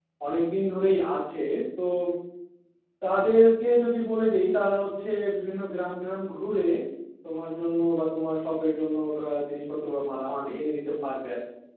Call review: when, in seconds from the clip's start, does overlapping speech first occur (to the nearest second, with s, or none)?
none